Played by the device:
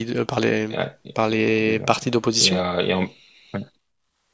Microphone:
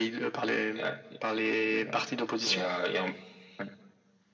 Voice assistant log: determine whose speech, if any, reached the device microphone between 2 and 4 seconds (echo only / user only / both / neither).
echo only